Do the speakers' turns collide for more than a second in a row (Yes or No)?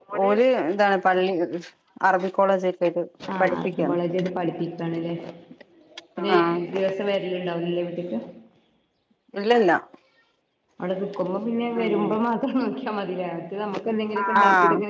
No